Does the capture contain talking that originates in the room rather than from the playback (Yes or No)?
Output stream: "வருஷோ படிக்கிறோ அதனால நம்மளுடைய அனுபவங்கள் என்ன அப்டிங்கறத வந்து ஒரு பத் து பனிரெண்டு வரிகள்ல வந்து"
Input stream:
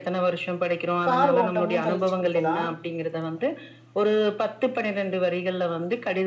Yes